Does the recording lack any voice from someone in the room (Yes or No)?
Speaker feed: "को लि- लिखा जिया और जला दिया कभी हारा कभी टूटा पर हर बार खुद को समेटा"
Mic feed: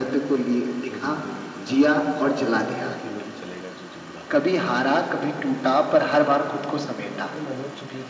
No